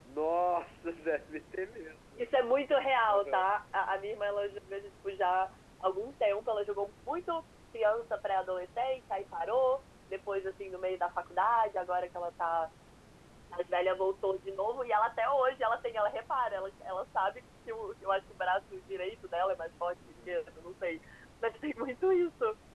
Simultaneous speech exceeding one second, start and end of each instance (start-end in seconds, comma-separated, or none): none